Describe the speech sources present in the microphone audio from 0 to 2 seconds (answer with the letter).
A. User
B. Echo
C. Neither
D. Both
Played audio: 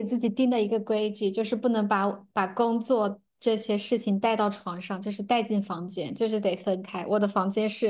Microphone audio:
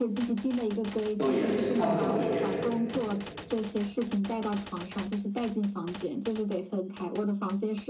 D